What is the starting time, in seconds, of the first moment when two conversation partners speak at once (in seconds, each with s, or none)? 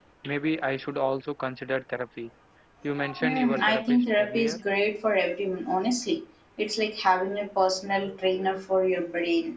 3.2 s